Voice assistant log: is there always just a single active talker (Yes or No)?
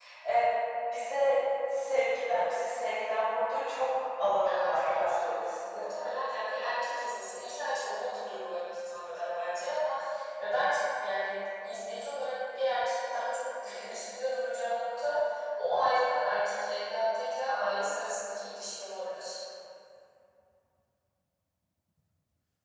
No